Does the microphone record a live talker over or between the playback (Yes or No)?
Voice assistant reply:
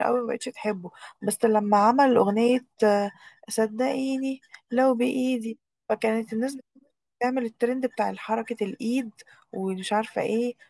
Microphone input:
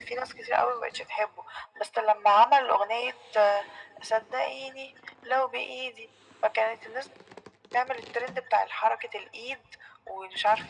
No